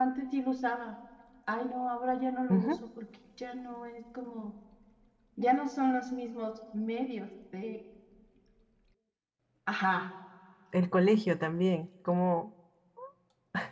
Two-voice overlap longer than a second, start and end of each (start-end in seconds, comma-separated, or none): none